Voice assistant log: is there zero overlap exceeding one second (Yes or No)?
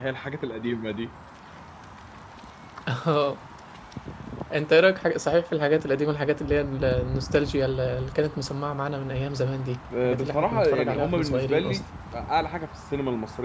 No